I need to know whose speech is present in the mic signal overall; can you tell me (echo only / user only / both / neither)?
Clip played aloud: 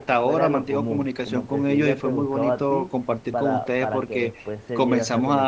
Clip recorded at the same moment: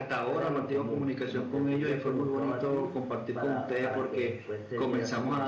echo only